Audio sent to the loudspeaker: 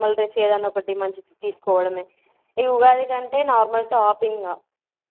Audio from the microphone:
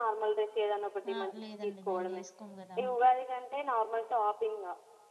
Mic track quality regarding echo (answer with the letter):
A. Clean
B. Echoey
B